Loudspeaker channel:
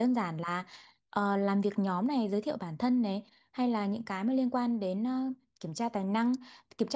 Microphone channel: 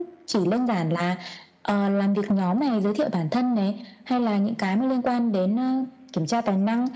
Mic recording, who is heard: echo only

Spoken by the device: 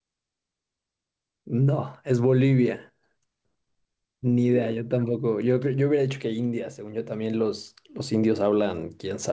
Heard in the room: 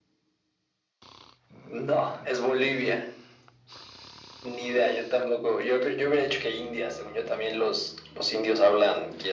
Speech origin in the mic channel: echo only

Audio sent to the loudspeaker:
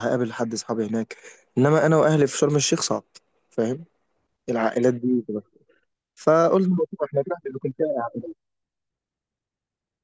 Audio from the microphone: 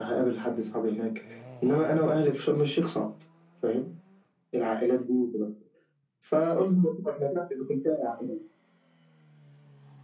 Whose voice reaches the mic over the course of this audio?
echo only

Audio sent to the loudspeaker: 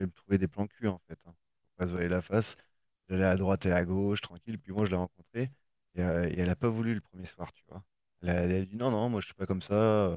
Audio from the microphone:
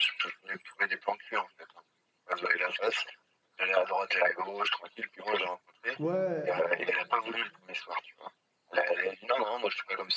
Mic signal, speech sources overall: both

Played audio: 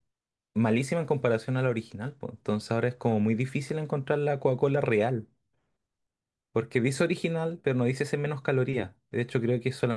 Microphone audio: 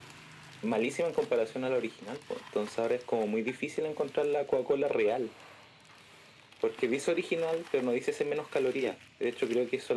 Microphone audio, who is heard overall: echo only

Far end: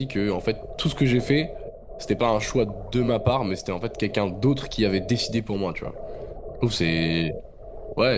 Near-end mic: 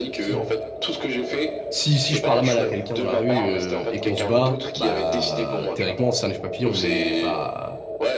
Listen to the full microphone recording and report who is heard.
both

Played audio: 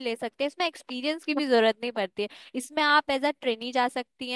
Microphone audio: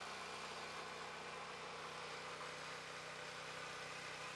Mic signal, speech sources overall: neither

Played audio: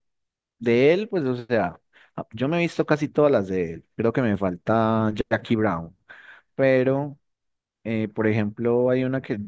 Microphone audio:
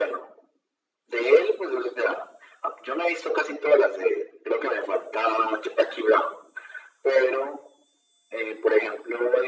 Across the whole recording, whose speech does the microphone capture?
echo only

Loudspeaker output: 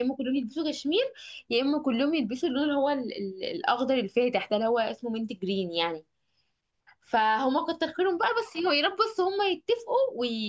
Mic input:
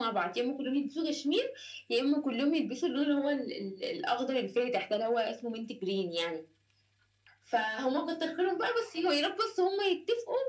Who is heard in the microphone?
echo only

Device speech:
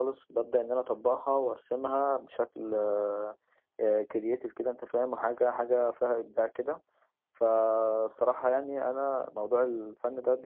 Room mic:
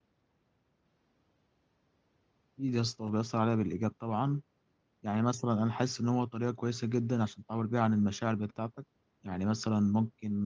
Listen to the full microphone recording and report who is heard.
user only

